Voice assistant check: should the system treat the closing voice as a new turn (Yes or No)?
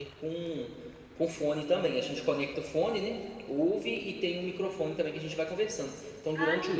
No